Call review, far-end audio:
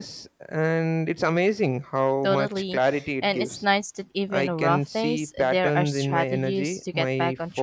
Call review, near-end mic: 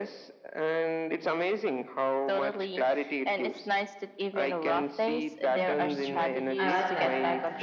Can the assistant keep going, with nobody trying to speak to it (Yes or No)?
No